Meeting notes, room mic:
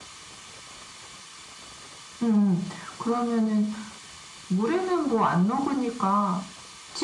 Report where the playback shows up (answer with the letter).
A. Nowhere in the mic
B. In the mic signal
B